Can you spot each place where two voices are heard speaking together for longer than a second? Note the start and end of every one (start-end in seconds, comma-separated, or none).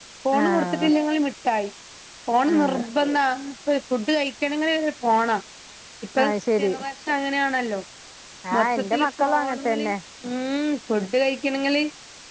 8.6-9.9